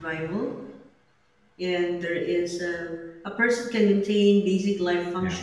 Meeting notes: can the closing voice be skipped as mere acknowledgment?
Yes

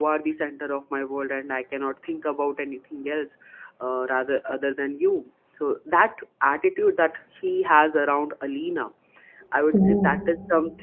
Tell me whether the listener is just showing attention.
Yes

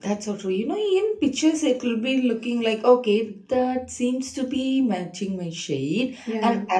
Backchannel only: Yes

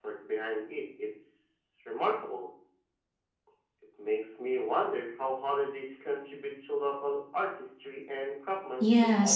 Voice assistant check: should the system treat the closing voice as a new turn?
Yes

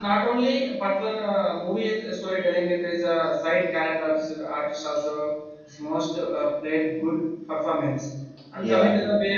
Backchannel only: Yes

